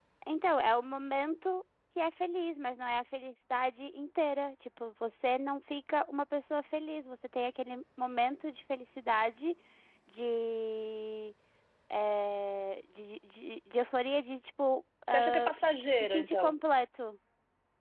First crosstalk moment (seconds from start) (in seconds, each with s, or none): 15.1 s